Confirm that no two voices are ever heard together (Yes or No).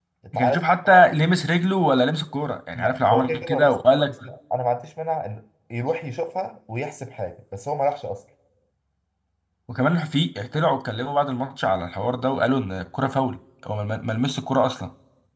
No